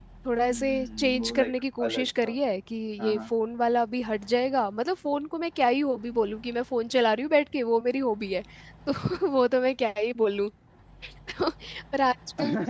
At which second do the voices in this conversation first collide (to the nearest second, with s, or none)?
1 s